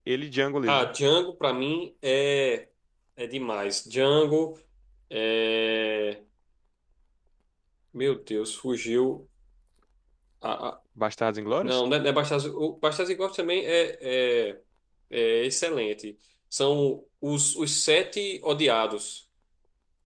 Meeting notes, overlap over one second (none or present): none